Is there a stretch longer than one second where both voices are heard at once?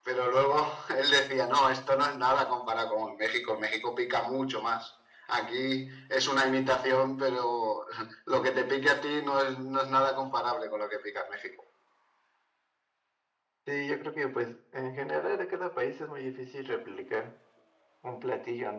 No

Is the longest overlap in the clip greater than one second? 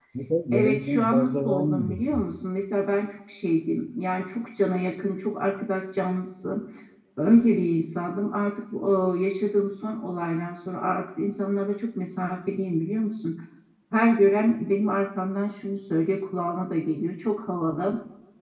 Yes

